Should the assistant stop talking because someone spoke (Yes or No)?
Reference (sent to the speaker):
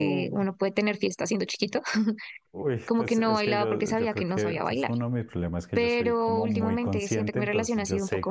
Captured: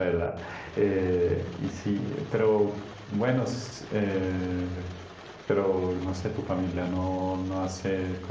Yes